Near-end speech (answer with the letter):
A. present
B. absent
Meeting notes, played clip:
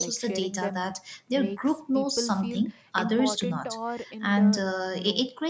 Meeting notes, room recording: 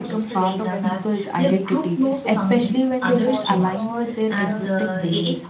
A